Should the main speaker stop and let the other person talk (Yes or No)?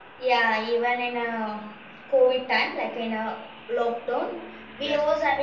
No